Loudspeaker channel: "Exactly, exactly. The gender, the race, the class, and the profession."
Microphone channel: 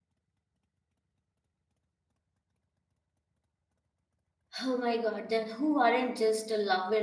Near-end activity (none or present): present